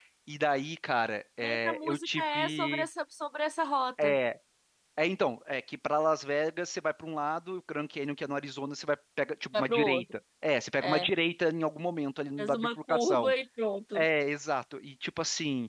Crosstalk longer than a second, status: present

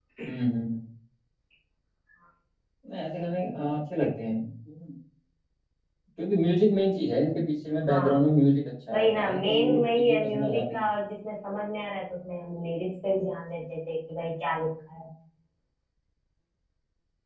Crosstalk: present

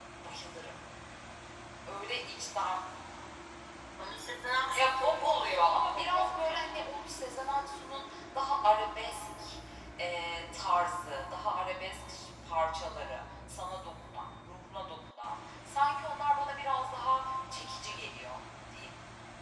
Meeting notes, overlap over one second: present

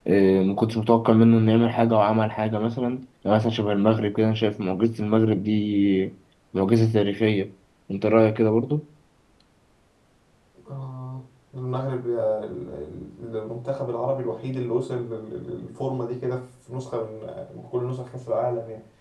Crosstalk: none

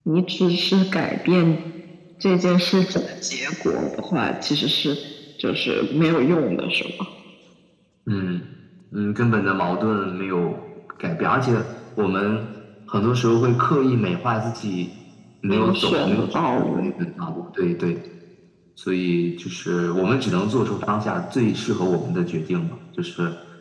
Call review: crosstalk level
present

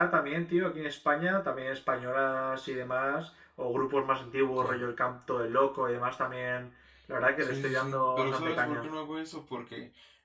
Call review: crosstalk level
present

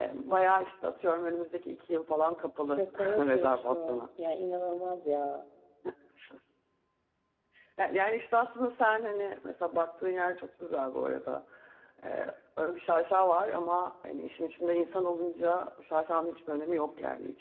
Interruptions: present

